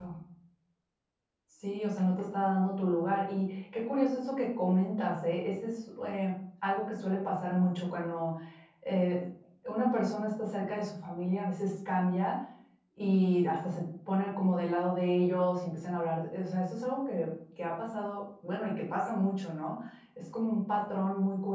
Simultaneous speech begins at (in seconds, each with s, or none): none